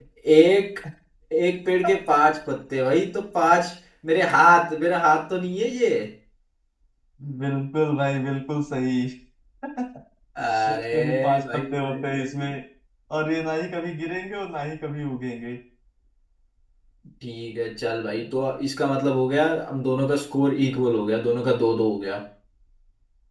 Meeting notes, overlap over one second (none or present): present